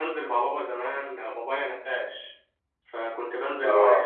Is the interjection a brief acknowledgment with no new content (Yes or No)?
Yes